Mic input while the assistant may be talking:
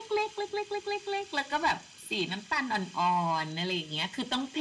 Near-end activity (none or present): none